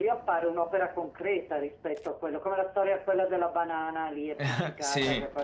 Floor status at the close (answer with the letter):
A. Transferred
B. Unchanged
B